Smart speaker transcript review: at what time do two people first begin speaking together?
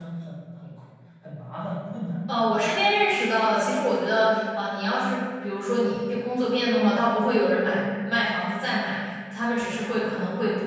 none

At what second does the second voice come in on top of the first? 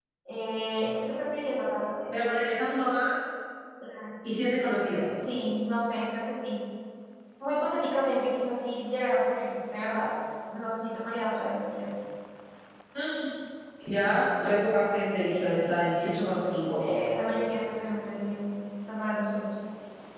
none

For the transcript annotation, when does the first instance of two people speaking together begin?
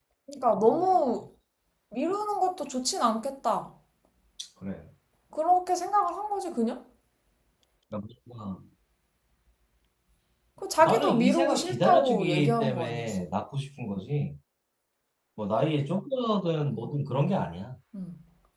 10.8 s

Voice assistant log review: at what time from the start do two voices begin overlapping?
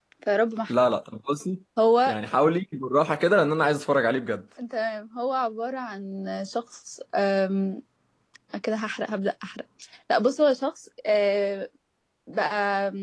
none

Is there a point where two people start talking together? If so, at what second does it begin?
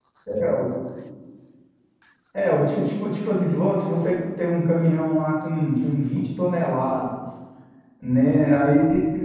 none

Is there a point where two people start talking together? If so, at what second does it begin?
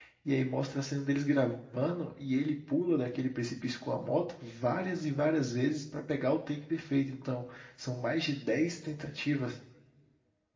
none

